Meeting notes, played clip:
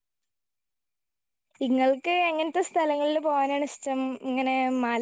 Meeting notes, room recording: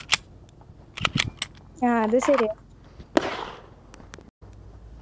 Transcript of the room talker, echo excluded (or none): ആഹ് അത് ശരിയാ